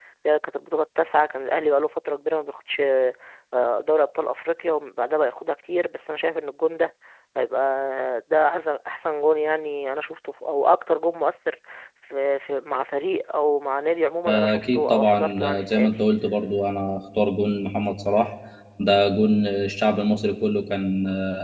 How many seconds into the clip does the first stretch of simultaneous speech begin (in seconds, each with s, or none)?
14.3 s